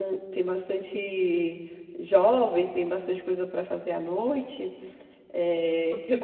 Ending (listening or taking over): taking over